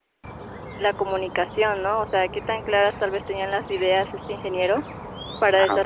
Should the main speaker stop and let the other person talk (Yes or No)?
No